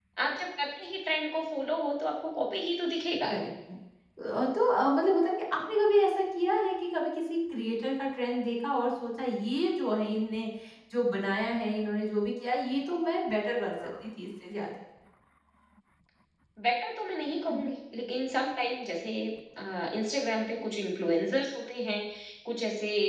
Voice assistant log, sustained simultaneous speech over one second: none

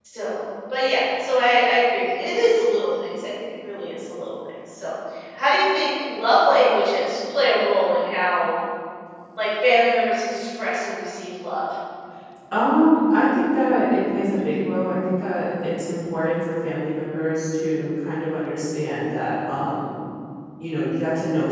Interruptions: none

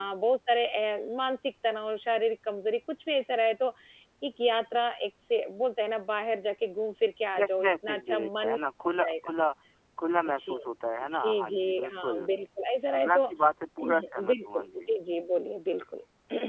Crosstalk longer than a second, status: present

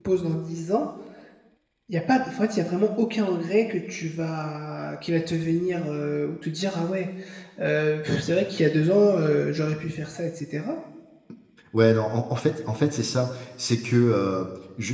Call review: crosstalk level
none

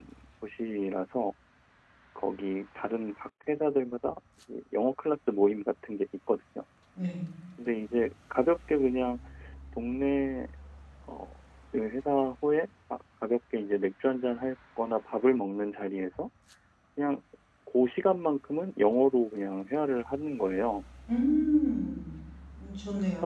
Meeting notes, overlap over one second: none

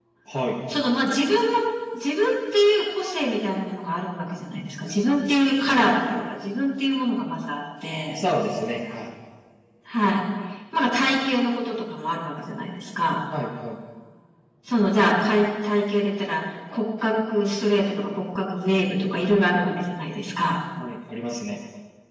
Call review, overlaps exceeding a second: none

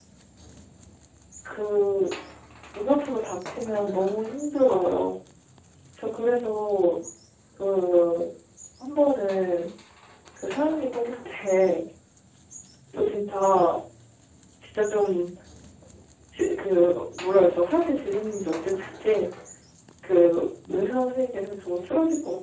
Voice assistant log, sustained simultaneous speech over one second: none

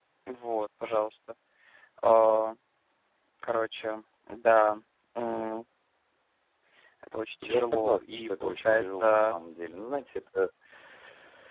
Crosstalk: present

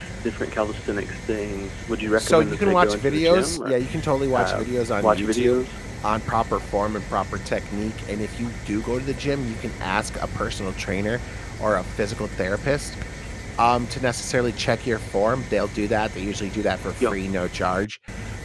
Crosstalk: present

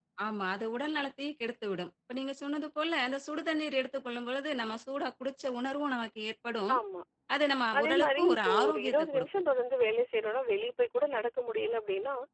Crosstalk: present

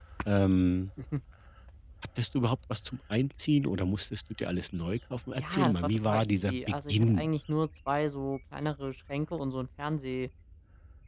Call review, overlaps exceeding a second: present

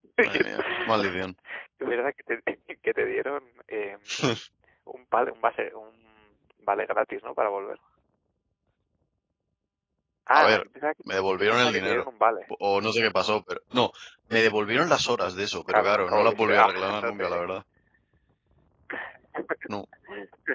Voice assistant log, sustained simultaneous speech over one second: present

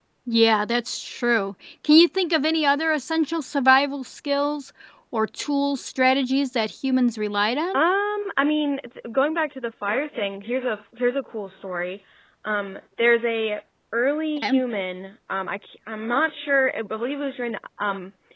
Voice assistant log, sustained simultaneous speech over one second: none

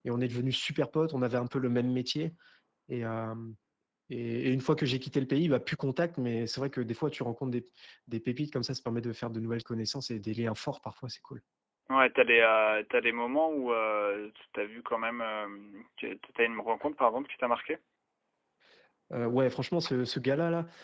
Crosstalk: none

